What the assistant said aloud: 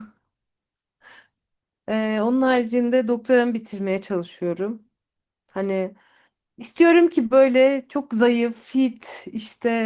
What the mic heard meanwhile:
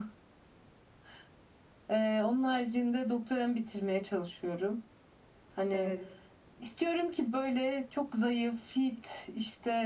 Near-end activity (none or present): present